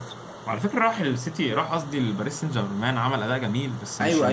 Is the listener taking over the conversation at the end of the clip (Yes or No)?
Yes